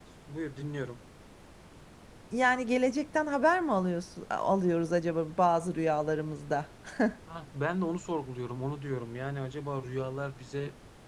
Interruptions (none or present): none